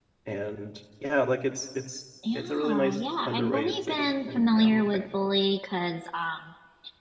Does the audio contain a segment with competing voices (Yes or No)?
Yes